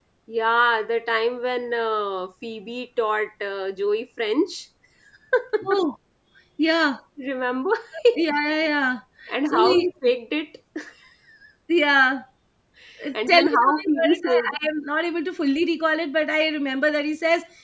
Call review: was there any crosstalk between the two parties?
Yes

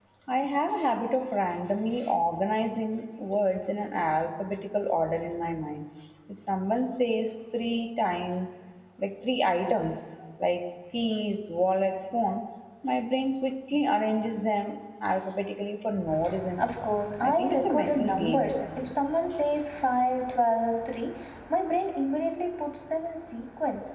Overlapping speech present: Yes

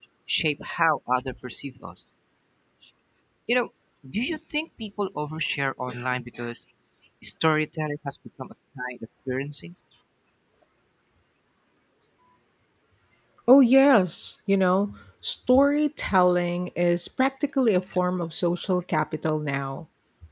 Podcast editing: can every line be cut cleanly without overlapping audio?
Yes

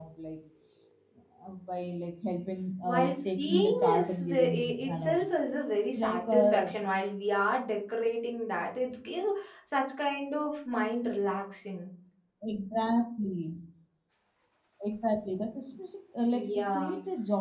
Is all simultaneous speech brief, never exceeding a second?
No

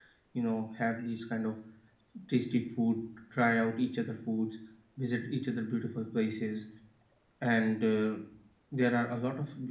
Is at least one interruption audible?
No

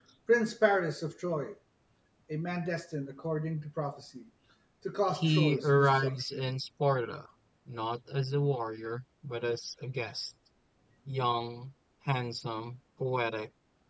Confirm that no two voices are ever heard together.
No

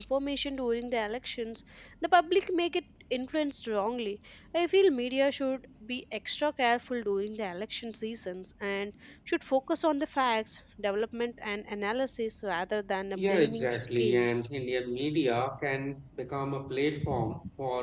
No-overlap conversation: No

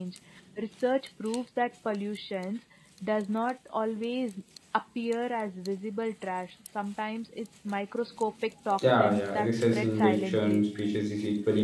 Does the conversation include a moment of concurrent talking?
Yes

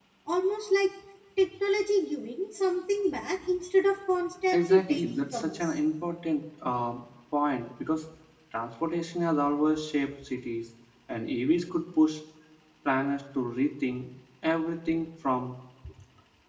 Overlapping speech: Yes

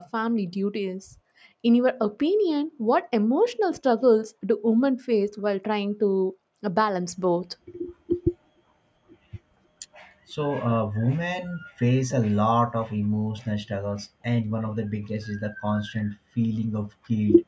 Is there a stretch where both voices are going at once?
No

